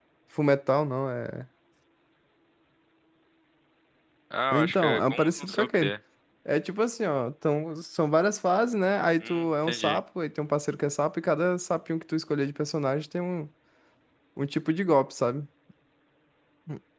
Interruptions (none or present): present